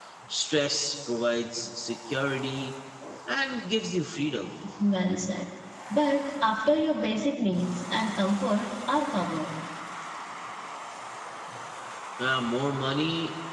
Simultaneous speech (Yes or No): No